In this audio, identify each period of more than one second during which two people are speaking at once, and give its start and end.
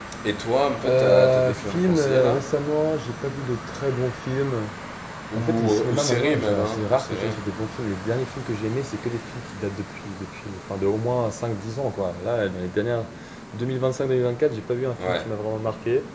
0.9-2.5, 5.4-7.4

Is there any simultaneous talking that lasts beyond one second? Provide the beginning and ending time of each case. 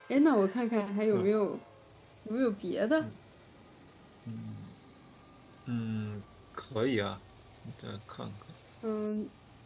none

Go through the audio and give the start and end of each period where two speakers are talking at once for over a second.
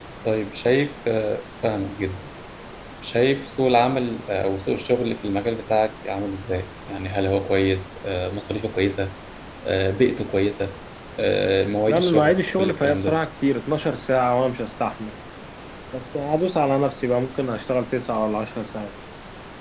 11.9-13.2

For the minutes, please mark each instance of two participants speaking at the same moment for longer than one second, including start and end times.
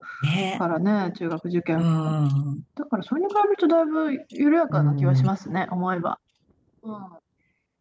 none

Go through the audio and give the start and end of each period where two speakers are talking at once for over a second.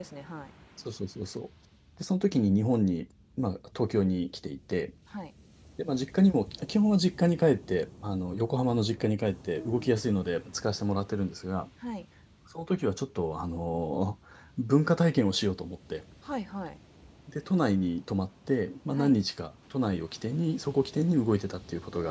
none

